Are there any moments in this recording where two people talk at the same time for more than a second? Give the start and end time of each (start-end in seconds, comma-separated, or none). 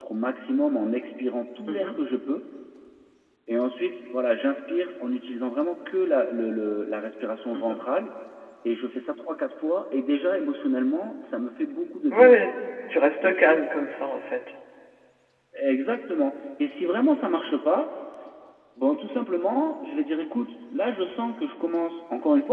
none